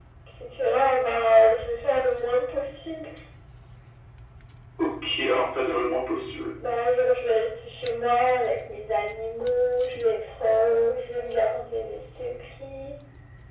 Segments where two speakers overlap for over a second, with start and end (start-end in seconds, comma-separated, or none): none